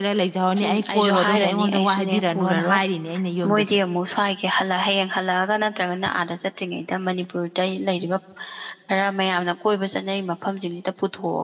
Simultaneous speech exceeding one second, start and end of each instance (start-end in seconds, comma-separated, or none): 0.6-2.8